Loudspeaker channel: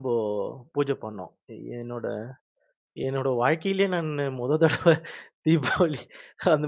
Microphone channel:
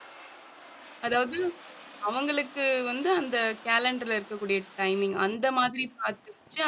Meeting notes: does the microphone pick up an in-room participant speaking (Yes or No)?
Yes